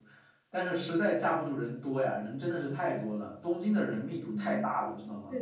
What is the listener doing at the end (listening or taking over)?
taking over